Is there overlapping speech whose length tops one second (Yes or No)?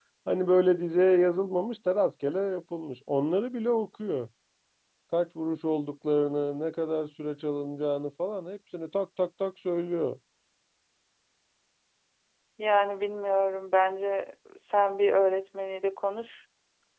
No